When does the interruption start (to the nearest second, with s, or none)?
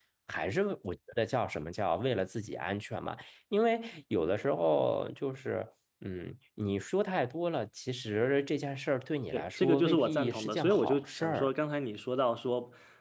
9 s